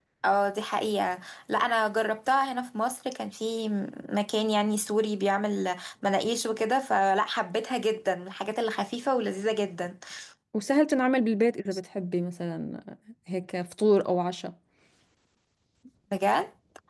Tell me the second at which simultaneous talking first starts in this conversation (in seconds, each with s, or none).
none